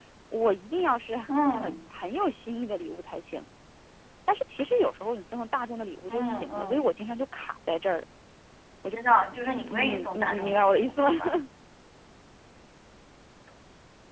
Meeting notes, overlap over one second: present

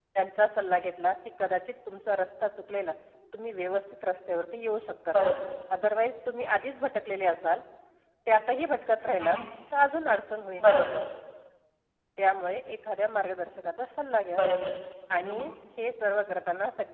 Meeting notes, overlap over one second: none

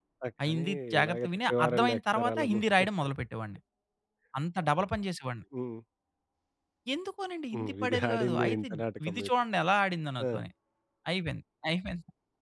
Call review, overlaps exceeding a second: present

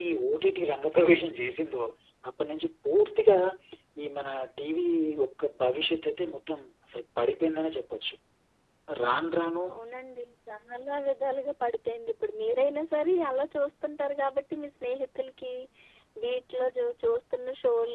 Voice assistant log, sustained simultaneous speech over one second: none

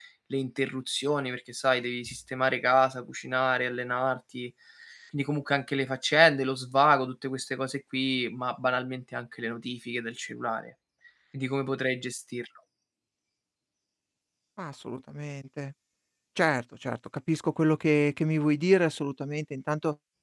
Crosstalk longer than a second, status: none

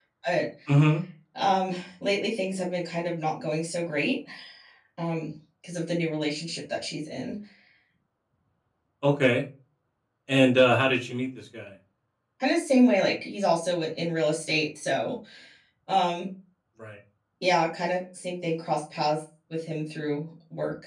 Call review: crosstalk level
none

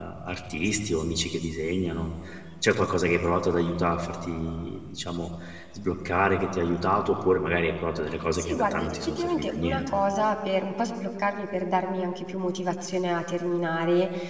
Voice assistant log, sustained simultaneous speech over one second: present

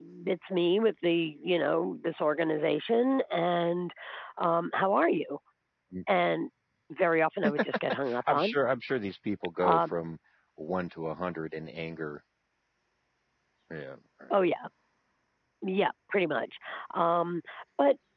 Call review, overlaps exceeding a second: none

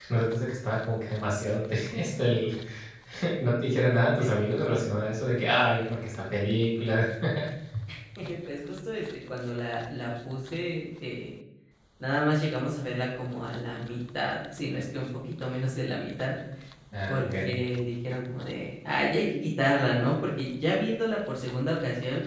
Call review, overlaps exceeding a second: none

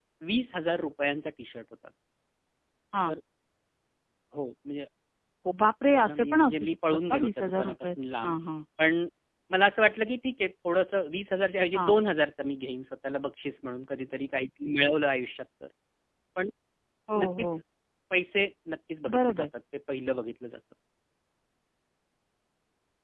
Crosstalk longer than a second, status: present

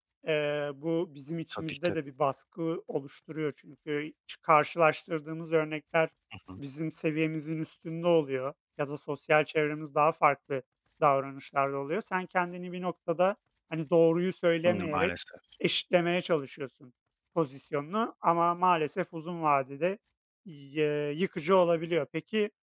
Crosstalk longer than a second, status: none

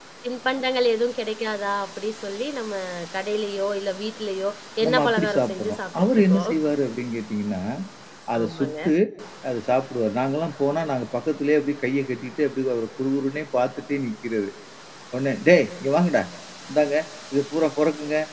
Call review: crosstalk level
present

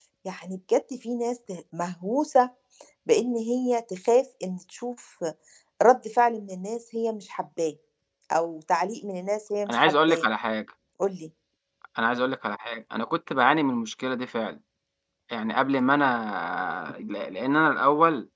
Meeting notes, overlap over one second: none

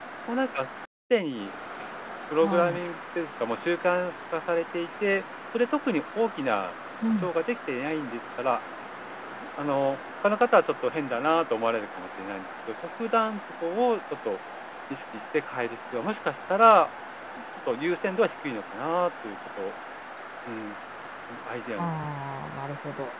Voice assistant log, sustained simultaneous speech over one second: none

